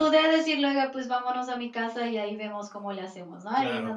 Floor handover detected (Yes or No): Yes